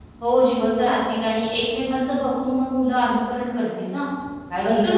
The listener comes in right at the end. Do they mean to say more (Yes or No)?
Yes